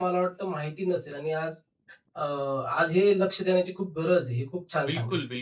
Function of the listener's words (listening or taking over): taking over